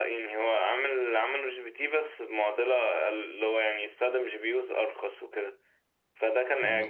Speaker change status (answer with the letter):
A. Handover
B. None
B